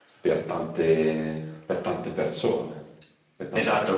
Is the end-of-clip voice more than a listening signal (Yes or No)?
Yes